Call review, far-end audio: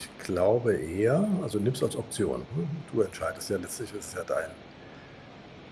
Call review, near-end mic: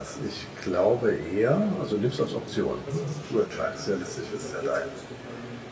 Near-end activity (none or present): present